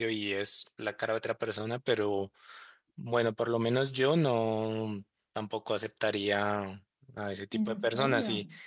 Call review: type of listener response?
listening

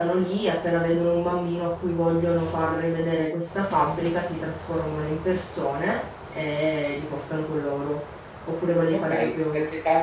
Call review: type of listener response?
taking over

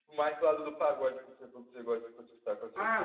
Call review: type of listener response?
taking over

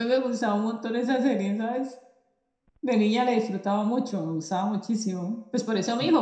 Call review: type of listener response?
listening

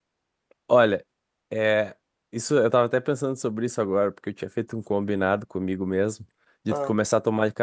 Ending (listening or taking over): listening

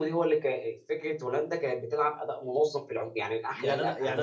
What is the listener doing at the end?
taking over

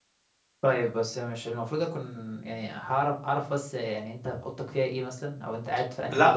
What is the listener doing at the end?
listening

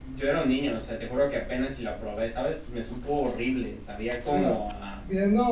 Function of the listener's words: taking over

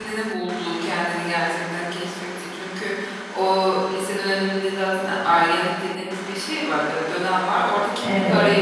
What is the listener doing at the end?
listening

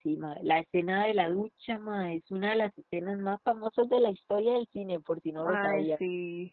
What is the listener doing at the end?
taking over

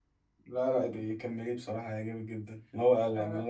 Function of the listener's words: listening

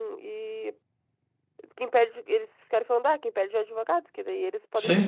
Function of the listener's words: listening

